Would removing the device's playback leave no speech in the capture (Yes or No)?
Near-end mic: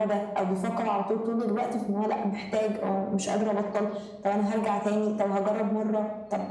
Yes